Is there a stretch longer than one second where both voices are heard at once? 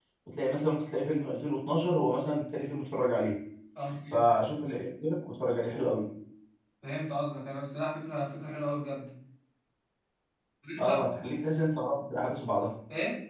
No

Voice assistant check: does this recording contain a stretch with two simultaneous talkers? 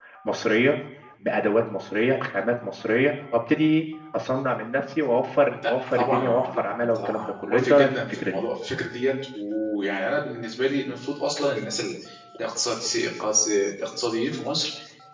Yes, from 5.6 s

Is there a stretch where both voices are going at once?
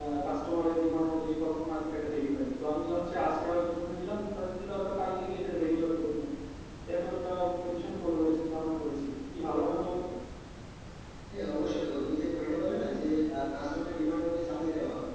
No

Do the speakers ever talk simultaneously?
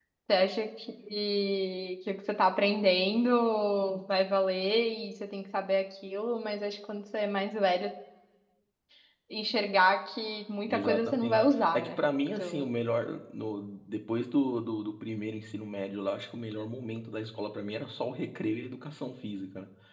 Yes, from 10.7 s

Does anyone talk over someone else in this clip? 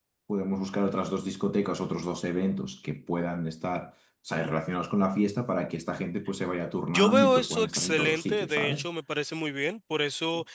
Yes, from 6.8 s

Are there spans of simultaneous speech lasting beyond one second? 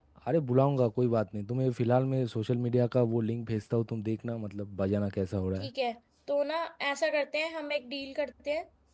No

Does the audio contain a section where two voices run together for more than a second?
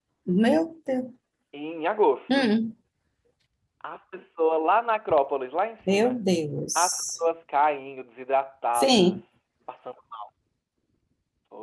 No

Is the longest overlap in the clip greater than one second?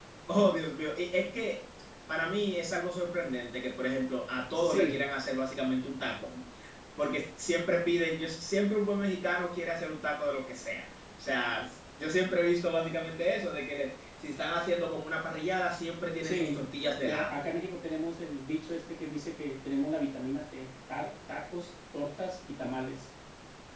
No

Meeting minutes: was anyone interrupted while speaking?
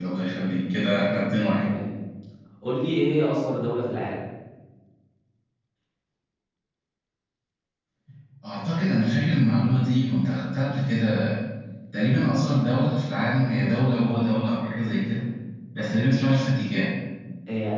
No

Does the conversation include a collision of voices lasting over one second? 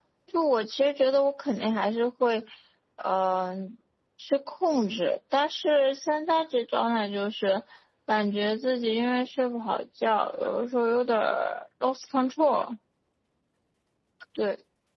No

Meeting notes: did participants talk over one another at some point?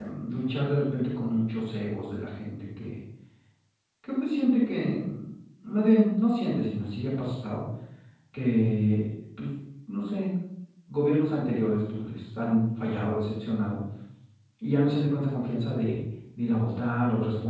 No

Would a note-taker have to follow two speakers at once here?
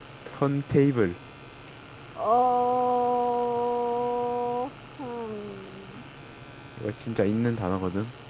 No

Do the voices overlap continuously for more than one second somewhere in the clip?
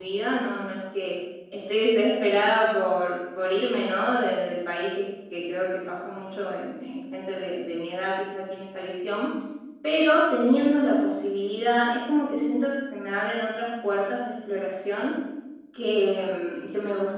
No

